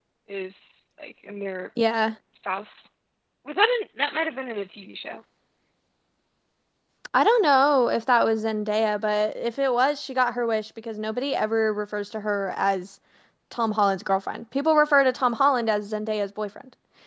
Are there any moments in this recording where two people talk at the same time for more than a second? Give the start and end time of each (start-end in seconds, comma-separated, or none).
none